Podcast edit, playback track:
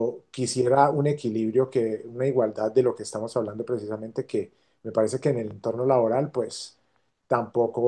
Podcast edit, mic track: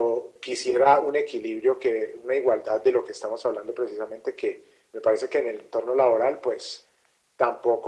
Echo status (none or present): present